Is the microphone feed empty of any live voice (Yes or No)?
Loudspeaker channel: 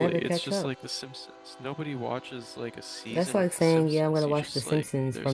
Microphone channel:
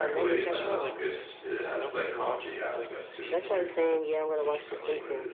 No